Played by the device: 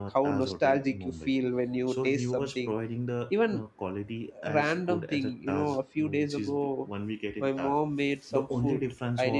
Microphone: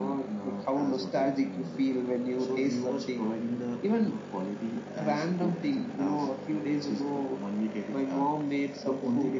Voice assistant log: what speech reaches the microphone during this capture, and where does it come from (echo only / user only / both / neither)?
echo only